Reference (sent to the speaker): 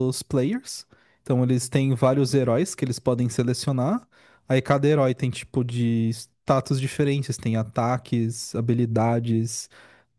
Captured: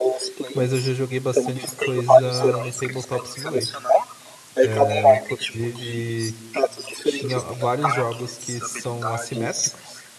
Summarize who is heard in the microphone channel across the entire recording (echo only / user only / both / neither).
both